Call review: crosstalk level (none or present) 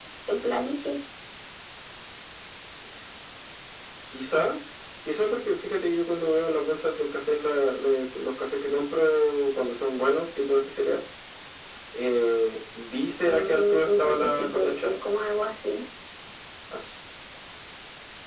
present